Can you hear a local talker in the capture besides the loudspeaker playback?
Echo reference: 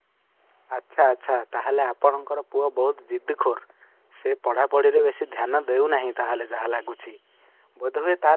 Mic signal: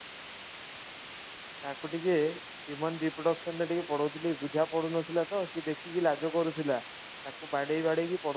Yes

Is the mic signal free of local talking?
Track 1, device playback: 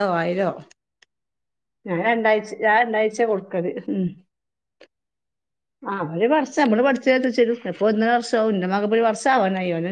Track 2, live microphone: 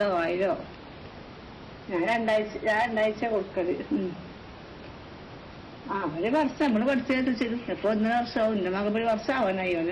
Yes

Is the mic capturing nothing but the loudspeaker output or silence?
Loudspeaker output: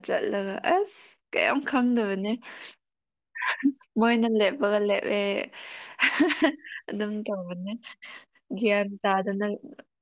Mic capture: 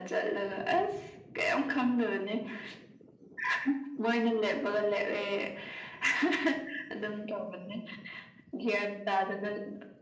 Yes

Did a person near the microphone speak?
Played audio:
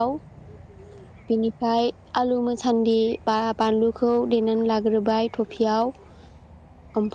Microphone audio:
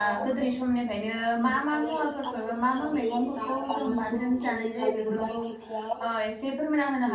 Yes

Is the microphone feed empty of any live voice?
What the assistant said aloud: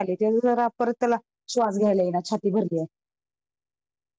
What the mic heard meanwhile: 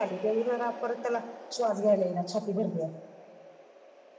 Yes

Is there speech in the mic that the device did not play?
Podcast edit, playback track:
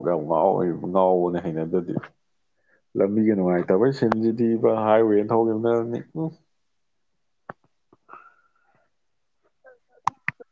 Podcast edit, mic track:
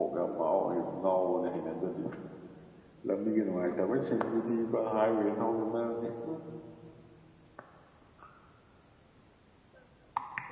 No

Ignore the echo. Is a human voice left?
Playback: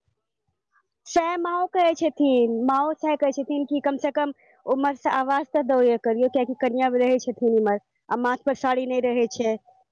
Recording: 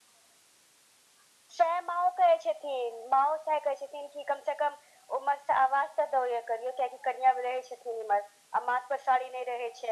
No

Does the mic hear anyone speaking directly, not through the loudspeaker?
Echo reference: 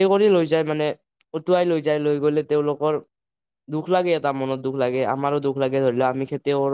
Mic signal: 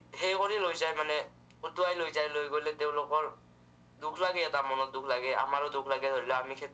No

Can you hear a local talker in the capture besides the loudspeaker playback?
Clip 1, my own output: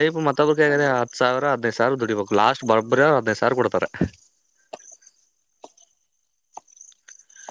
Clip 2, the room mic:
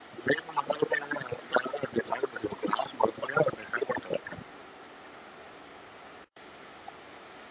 No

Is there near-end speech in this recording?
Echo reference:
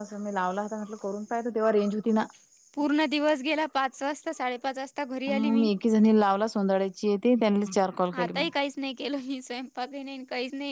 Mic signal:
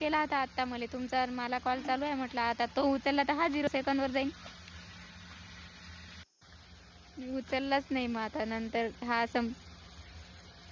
Yes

